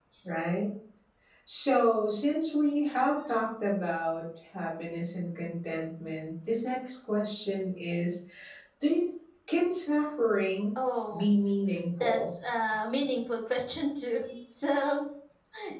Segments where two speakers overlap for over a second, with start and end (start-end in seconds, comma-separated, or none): none